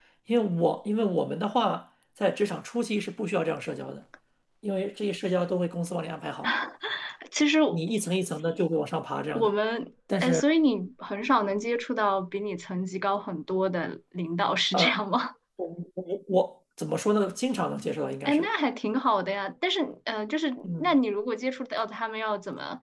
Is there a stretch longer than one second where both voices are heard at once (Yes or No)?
No